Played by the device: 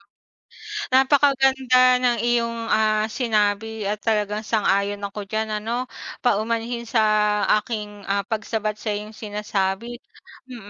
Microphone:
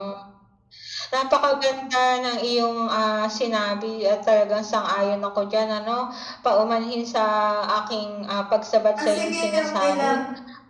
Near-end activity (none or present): present